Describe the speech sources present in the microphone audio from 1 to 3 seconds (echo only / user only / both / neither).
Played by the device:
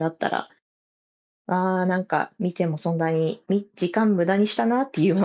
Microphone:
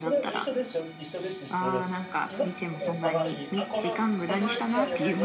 both